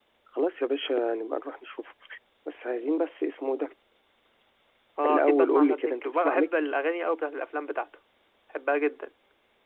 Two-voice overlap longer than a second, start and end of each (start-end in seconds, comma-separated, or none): 5.0-6.8